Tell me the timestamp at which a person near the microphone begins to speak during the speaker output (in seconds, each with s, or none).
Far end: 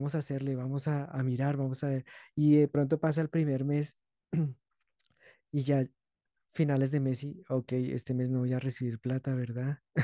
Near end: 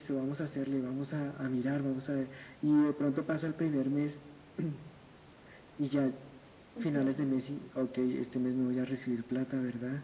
6.7 s